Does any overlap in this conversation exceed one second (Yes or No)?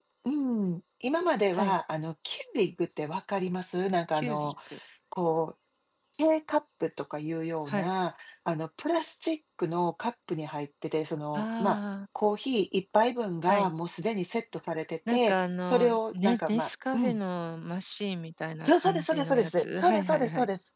Yes